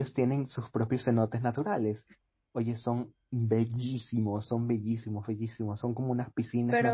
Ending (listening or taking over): listening